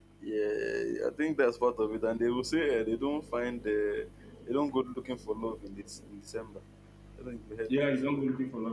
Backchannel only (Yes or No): No